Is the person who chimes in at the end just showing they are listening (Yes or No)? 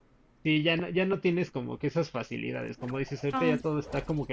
Yes